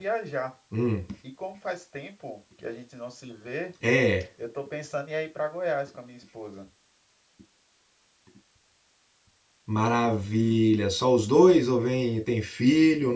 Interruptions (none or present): none